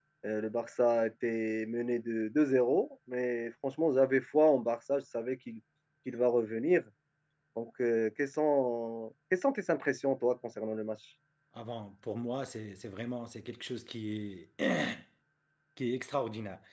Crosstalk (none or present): none